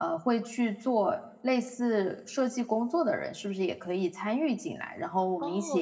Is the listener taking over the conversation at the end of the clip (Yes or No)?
Yes